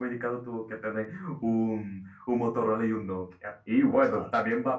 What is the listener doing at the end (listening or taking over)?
listening